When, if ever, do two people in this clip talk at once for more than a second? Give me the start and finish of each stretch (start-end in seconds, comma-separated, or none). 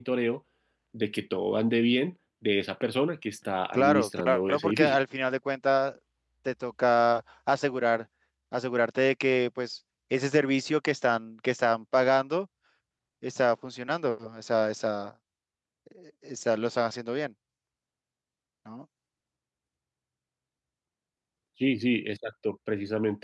3.7-5.0